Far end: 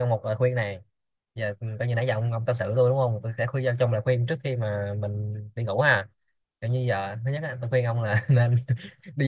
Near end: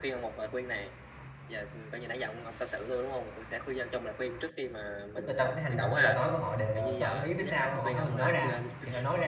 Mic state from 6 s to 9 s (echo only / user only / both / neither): both